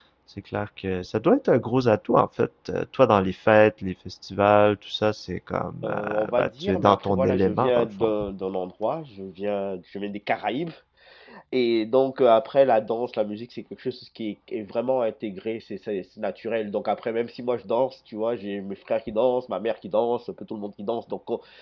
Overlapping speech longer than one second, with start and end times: 5.8-8.1

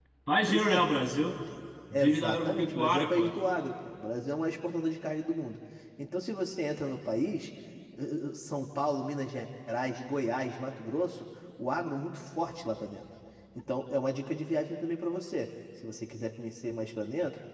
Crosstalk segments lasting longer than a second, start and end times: 1.9-3.3

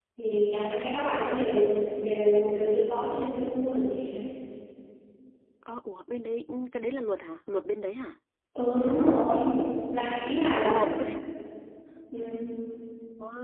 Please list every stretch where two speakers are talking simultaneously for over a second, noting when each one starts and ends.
none

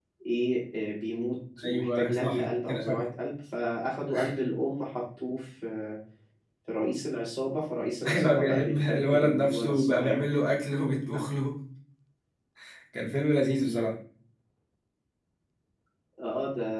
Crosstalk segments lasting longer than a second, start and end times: 1.6-3.0, 8.1-10.2

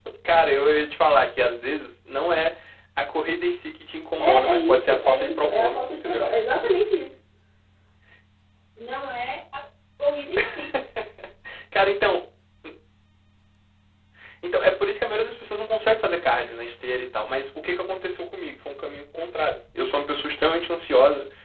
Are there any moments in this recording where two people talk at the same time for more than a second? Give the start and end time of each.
4.2-6.2

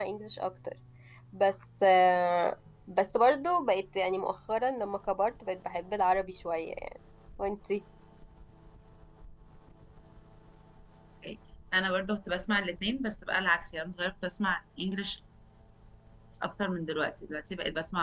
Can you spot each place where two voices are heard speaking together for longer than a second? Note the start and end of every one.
none

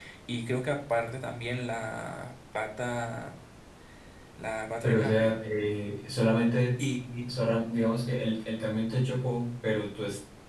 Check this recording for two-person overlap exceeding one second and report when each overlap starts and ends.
none

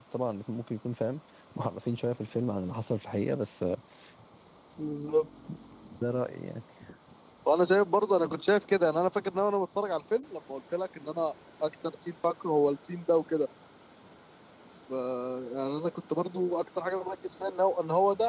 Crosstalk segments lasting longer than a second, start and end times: none

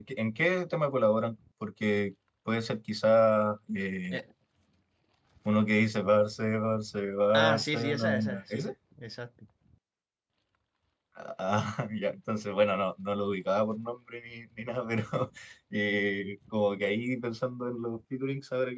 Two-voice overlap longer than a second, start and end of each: 7.3-8.7

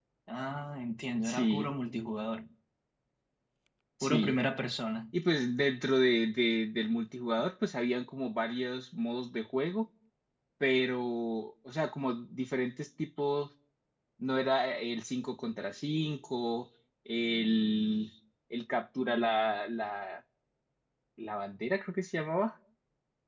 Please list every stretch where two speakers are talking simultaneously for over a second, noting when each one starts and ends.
none

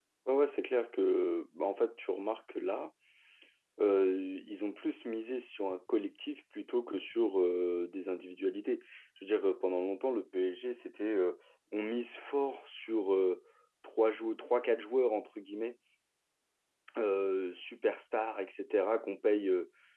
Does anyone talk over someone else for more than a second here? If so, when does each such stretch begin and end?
none

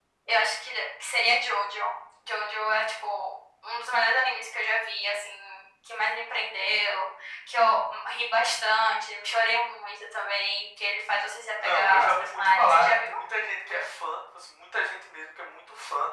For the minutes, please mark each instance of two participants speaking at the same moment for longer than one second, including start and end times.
11.6-13.1

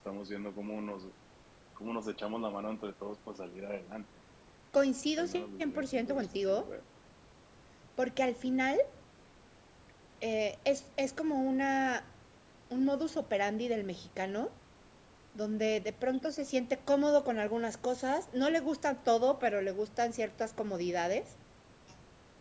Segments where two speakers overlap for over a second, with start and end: 5.2-6.7

